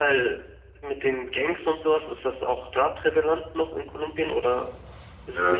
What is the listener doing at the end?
taking over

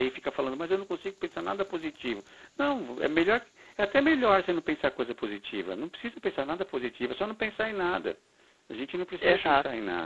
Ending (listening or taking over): listening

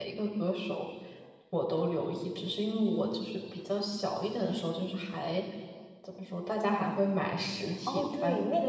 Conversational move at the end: taking over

